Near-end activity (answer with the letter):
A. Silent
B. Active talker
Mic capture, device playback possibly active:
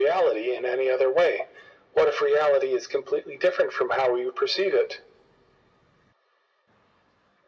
A